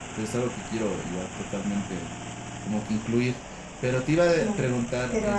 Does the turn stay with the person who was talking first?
No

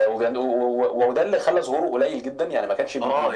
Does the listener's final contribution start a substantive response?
Yes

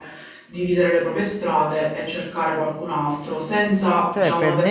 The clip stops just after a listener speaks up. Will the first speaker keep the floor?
No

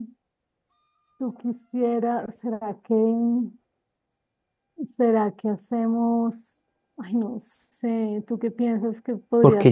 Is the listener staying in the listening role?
No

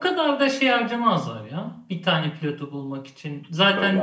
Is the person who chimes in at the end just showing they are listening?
Yes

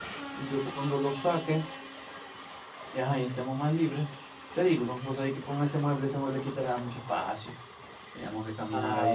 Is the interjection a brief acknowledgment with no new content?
Yes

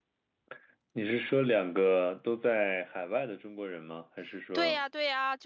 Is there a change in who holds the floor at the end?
Yes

